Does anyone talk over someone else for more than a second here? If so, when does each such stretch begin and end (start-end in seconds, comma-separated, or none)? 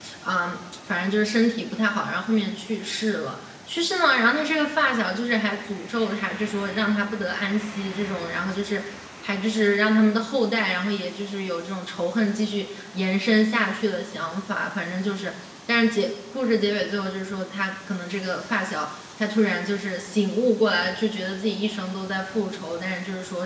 none